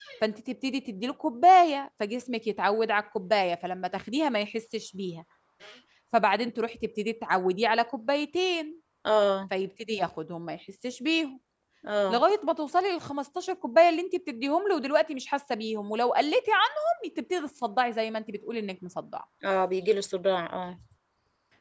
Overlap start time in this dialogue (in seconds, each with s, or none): none